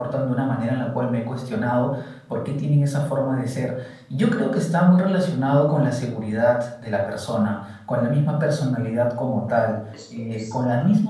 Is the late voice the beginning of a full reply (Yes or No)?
No